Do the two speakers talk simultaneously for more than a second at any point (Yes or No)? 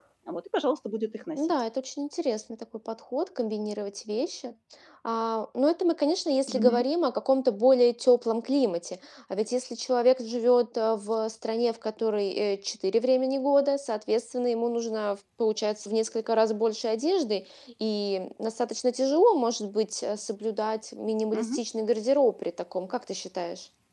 No